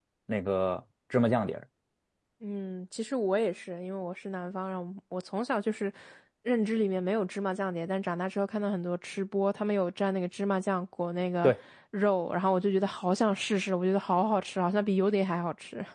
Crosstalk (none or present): none